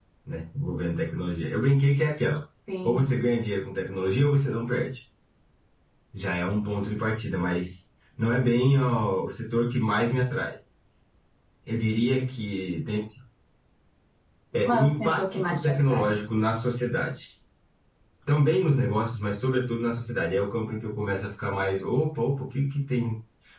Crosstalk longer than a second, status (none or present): present